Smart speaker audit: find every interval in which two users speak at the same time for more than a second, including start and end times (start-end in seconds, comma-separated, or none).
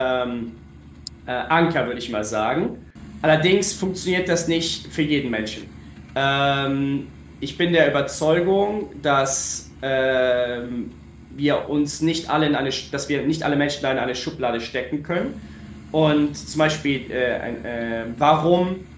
none